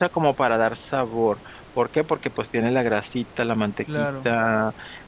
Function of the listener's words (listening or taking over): listening